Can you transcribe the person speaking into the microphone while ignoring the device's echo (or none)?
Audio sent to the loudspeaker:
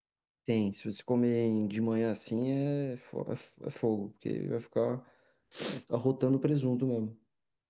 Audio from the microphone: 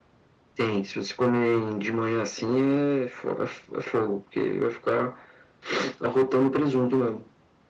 none